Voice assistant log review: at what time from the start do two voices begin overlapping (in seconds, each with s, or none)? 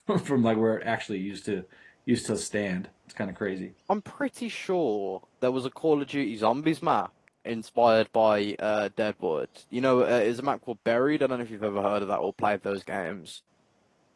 none